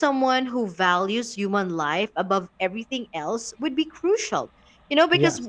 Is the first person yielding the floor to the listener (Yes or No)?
No